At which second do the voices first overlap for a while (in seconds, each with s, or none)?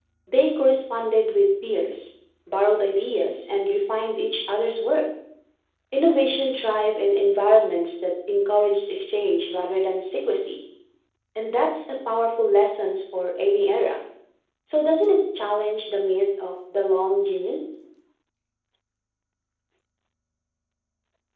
none